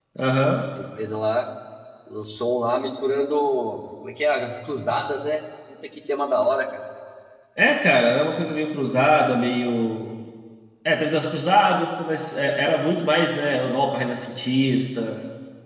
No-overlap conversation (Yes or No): Yes